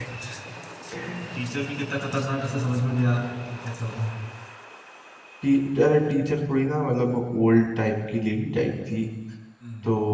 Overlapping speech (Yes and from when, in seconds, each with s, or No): No